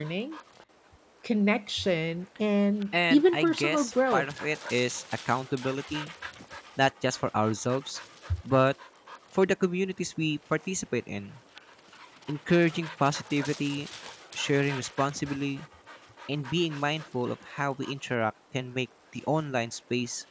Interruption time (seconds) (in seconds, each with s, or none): 2.9 s